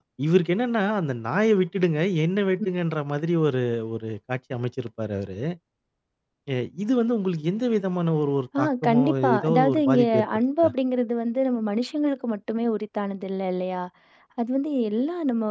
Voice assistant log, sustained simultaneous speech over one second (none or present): present